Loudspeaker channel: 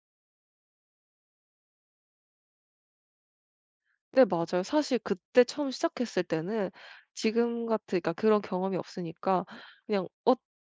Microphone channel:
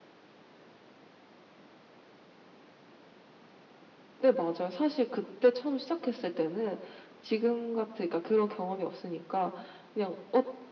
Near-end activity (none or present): none